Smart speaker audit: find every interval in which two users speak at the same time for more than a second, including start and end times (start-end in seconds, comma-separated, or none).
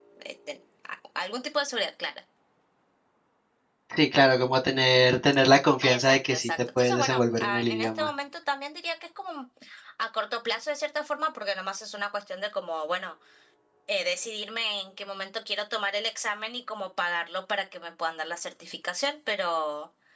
5.8-8.1